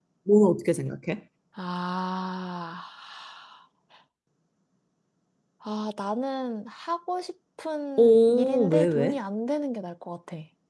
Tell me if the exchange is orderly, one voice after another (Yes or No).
No